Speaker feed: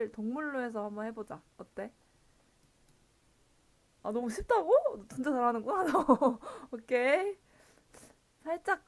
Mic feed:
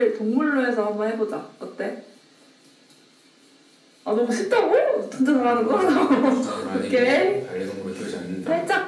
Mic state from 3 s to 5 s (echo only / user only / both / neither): echo only